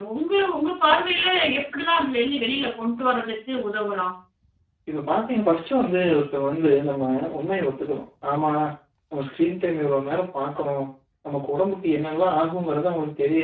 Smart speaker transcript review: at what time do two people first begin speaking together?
none

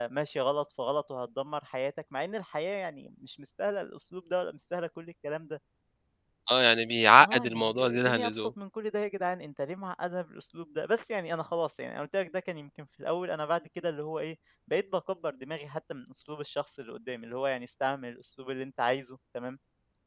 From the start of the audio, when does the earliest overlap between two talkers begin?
7.2 s

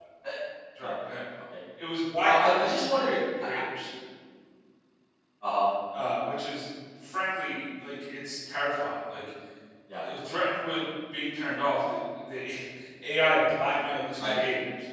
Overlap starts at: 2.2 s

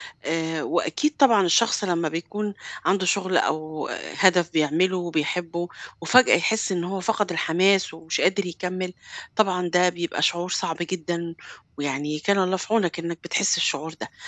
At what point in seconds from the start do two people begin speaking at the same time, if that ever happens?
none

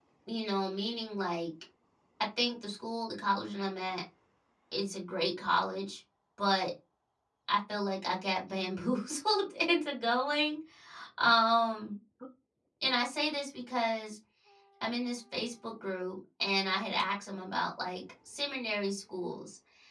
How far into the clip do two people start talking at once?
none

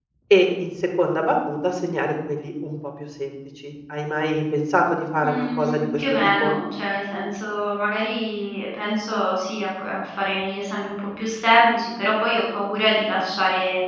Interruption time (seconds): 5.2 s

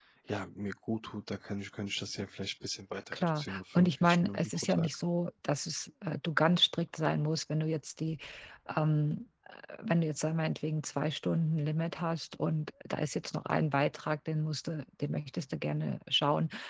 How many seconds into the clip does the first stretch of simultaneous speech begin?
3.1 s

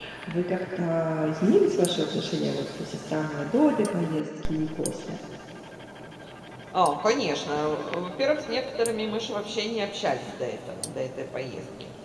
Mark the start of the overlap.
none

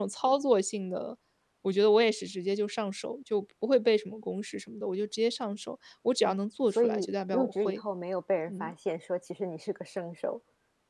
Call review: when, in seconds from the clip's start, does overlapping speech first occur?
6.2 s

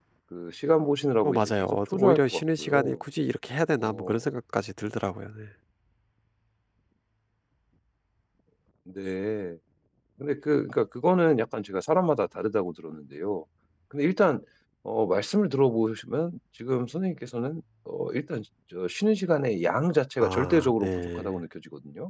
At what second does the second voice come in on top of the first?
1.2 s

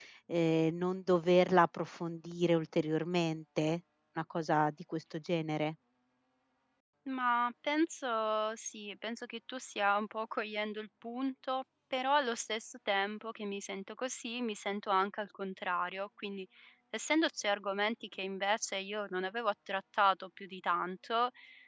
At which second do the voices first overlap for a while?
none

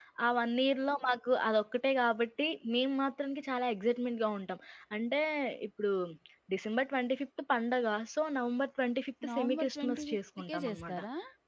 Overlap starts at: 9.2 s

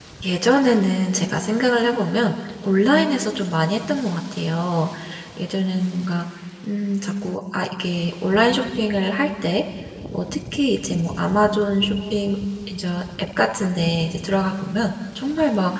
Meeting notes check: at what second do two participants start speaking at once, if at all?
none

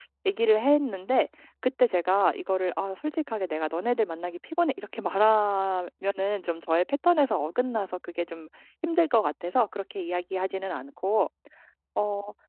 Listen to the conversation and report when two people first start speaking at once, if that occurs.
none

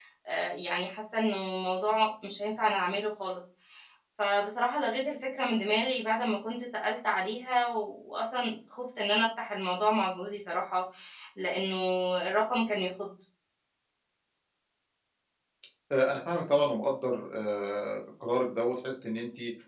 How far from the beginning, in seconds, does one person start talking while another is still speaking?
none

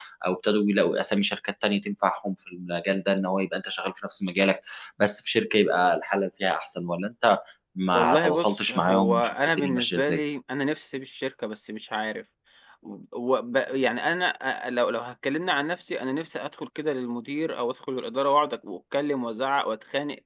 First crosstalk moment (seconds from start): 7.9 s

